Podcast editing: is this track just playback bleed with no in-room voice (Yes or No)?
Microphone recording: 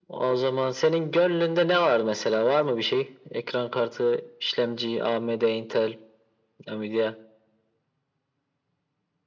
Yes